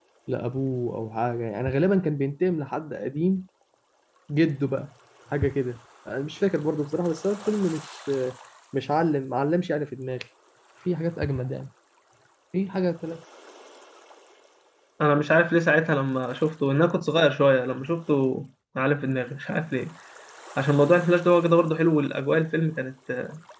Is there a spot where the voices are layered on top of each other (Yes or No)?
No